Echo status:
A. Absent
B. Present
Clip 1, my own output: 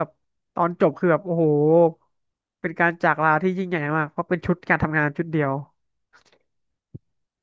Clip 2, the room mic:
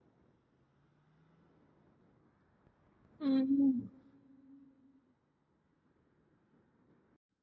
A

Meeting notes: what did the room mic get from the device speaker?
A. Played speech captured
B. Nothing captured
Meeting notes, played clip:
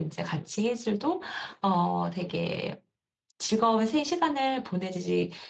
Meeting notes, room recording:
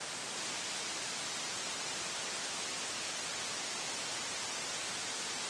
B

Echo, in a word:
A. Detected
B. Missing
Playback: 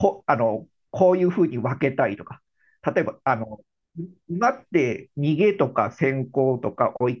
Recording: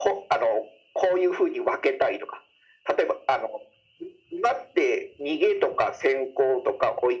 A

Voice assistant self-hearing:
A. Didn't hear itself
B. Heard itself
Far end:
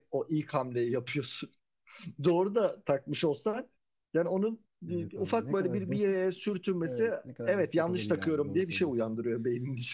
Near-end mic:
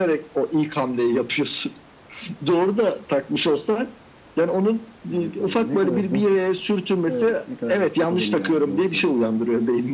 B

